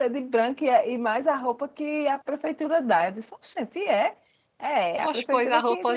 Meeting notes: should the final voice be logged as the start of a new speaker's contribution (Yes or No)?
Yes